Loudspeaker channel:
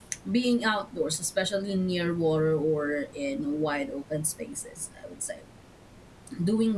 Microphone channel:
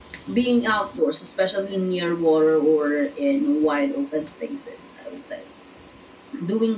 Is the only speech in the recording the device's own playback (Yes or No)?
Yes